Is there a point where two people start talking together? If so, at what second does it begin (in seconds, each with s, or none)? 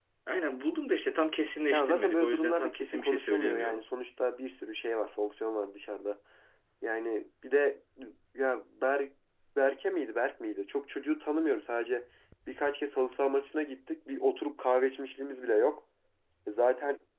1.7 s